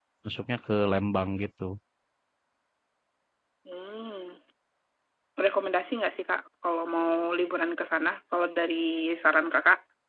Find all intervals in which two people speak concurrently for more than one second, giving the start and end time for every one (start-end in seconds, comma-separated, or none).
none